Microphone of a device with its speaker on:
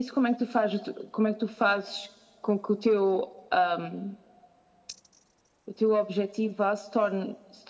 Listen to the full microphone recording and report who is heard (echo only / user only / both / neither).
echo only